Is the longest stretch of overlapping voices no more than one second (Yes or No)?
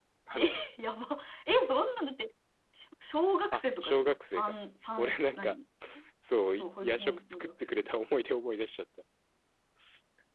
No